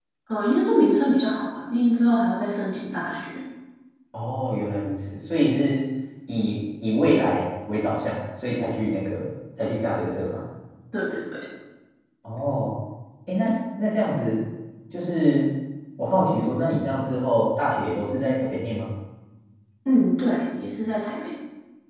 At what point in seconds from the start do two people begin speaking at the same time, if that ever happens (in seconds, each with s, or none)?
none